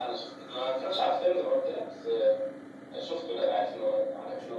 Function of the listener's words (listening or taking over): taking over